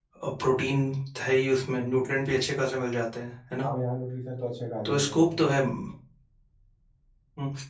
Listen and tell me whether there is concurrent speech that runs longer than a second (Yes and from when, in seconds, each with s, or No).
No